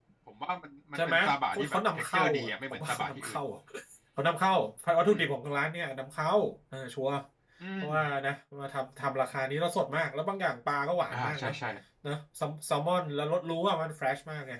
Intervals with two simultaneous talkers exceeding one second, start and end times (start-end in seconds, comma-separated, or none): 1.0-3.3